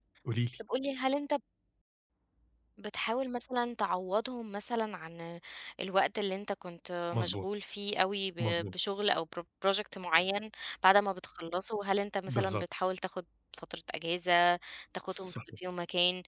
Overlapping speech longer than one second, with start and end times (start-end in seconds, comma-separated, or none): none